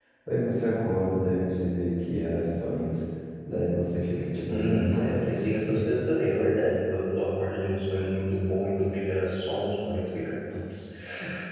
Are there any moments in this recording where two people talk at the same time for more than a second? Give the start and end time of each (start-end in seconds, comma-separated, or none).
4.5-5.8